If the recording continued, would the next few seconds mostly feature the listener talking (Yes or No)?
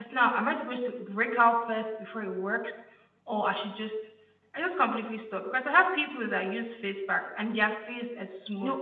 No